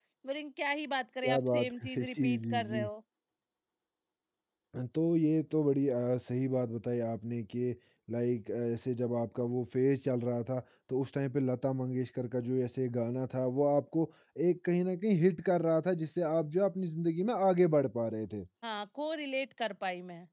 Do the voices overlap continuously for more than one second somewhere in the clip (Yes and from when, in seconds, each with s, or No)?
Yes, from 1.2 s